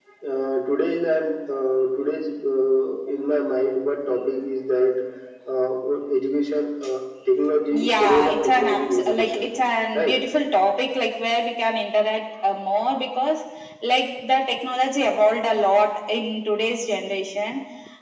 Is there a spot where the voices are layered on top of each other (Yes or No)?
Yes